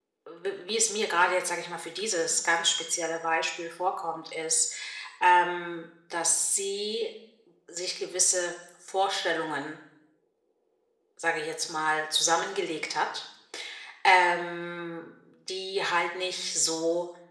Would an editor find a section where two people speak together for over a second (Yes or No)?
No